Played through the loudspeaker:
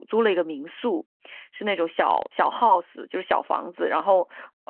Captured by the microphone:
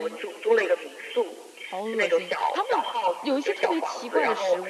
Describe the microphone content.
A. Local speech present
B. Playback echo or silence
A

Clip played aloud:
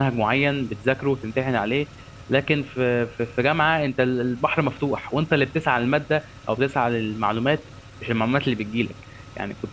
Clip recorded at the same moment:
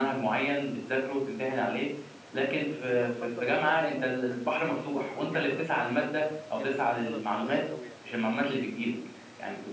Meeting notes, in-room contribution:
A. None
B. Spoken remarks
B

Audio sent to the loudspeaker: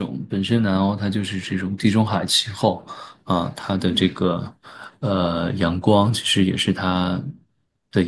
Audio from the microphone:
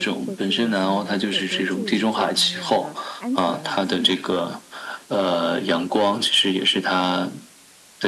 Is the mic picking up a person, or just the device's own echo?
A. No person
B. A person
B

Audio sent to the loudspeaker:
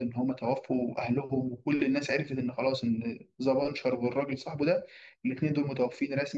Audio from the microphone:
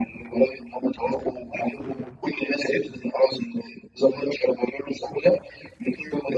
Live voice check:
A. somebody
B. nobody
B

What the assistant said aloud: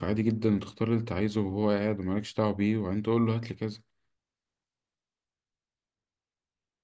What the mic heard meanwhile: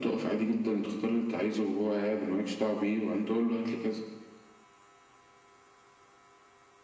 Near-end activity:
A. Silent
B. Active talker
A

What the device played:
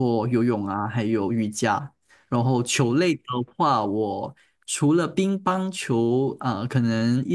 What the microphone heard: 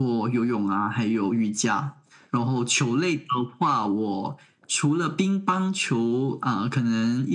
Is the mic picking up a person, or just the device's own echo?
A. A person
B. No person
B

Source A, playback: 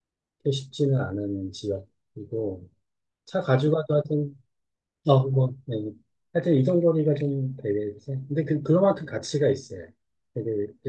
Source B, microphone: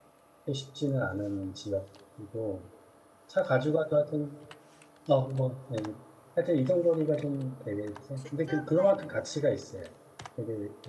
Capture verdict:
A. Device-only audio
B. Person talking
B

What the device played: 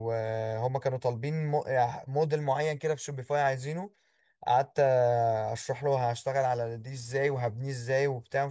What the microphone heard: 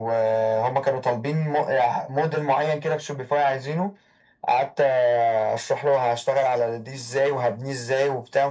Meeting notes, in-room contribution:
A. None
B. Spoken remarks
A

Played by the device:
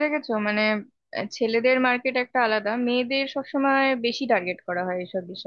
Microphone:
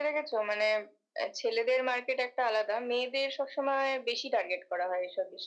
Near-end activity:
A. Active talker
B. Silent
B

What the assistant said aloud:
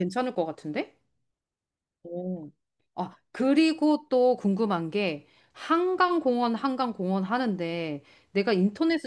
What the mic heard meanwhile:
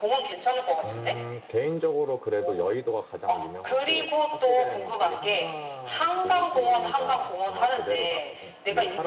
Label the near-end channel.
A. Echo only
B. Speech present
B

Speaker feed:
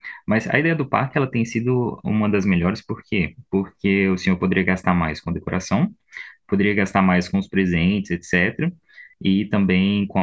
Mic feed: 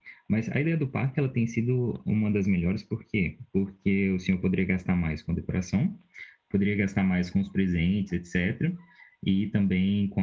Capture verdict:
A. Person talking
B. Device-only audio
B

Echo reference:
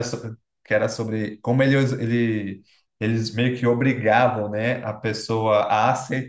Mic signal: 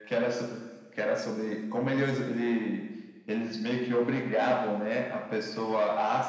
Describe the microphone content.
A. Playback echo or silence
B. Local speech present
A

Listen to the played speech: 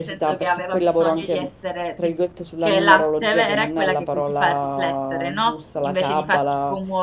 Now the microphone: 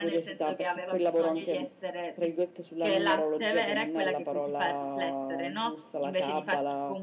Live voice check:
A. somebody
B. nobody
B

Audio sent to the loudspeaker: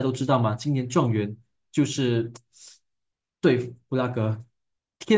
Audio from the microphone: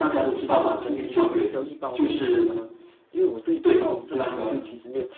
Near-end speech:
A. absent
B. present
B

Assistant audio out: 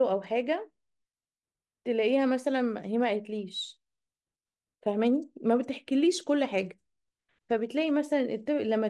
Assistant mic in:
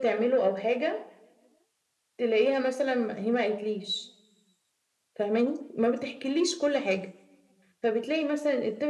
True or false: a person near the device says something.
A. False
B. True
A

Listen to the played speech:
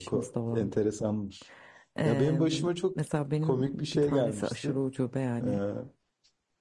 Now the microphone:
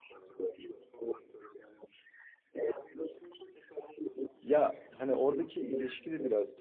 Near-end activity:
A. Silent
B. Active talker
B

